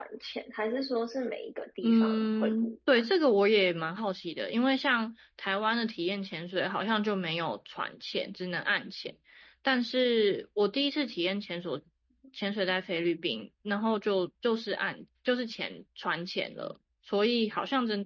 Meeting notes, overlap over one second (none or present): present